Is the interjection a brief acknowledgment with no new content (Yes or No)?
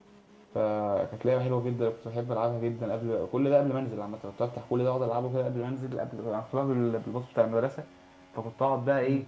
Yes